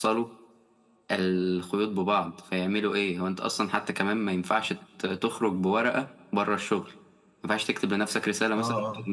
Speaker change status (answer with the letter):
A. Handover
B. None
B